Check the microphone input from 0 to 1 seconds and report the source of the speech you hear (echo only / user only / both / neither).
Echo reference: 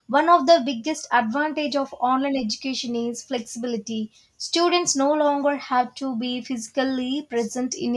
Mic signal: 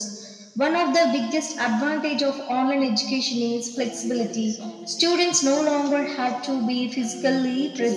echo only